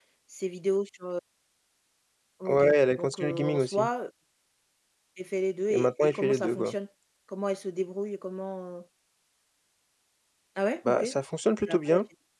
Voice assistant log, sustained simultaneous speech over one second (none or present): present